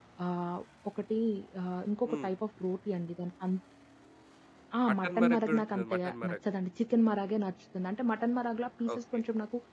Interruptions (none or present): present